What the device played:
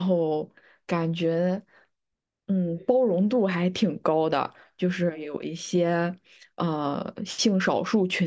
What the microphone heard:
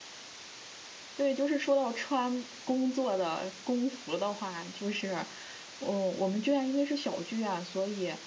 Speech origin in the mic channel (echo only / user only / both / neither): user only